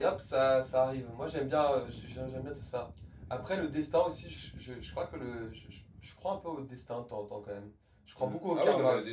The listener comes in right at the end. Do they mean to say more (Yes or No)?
Yes